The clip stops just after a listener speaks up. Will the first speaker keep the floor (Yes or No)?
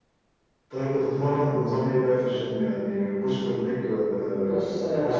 No